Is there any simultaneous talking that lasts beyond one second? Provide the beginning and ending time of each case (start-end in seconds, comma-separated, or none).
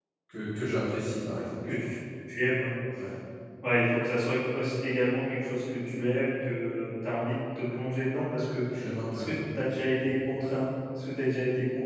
none